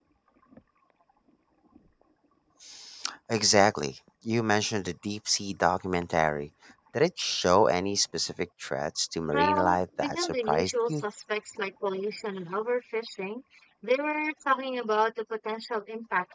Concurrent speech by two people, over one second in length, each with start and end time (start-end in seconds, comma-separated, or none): 9.3-11.0